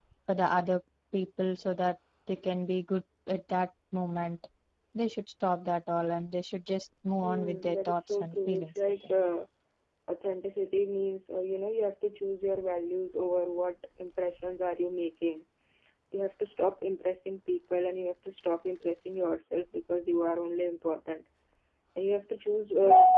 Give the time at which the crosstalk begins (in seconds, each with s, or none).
7.2 s